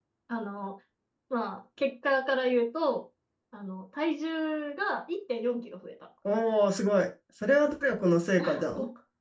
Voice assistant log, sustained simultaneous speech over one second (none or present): none